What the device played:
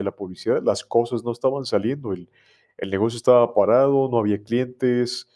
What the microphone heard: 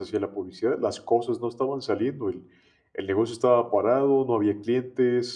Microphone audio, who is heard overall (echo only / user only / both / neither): echo only